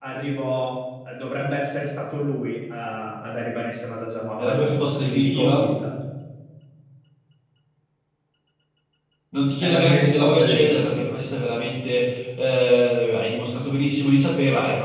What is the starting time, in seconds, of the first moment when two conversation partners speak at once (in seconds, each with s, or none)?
4.4 s